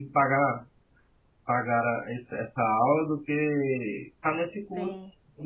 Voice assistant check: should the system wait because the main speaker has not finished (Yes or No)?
No